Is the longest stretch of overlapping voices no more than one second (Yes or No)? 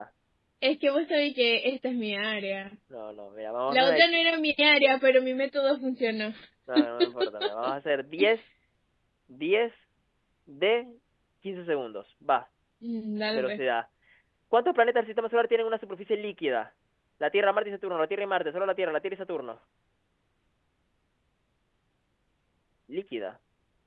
Yes